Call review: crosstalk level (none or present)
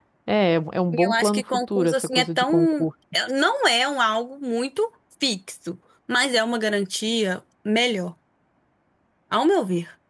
present